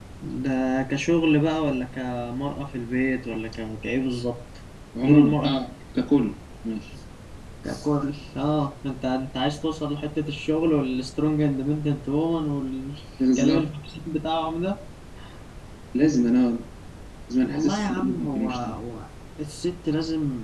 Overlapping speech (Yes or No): Yes